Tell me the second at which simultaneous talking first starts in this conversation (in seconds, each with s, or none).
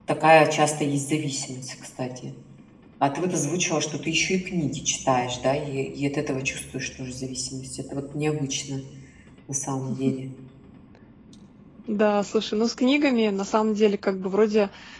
none